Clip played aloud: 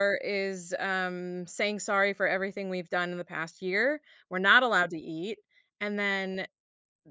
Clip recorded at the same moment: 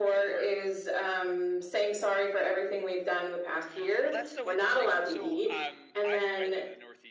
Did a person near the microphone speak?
Yes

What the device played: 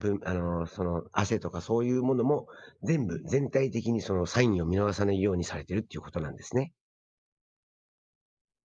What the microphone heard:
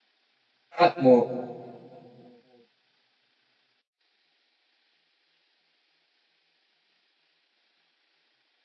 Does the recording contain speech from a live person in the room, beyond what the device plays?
Yes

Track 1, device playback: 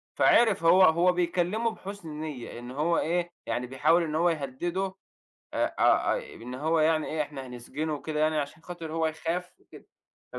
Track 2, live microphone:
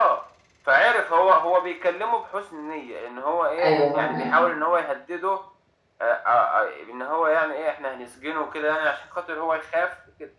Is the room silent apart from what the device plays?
No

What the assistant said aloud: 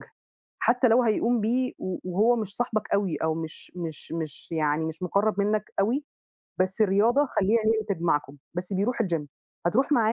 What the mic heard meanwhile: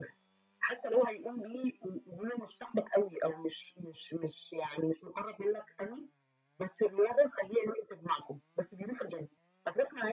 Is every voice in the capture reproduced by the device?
Yes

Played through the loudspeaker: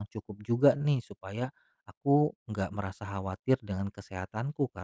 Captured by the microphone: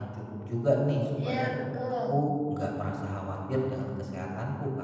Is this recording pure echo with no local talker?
No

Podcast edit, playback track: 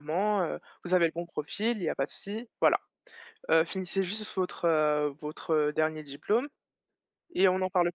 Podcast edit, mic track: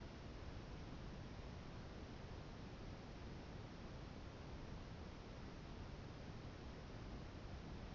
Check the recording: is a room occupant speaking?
No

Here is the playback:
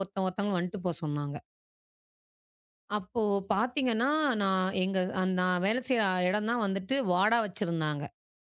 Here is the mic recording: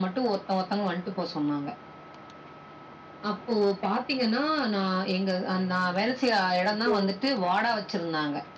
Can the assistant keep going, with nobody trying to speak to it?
No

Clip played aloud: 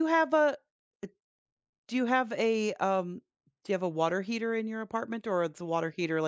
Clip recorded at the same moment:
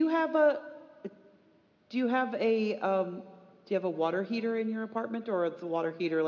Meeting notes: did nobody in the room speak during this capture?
Yes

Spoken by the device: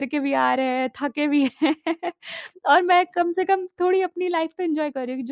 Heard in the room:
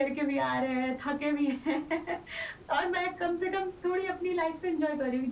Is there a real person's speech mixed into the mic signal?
No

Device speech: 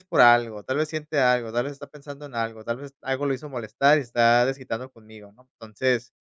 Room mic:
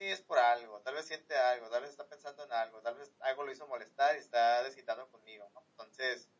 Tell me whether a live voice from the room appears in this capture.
No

